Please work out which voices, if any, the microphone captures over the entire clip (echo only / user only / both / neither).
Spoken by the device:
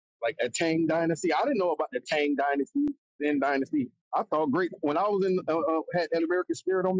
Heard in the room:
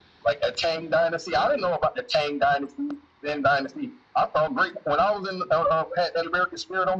both